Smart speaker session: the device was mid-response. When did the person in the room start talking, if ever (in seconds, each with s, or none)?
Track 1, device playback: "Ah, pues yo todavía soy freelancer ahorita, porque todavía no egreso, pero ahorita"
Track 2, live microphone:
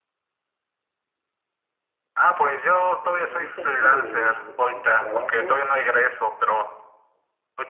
3.0 s